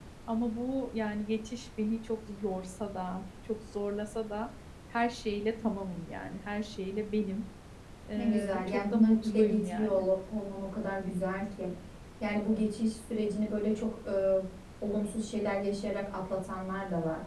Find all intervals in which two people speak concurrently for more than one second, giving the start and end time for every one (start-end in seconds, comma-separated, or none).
8.2-10.1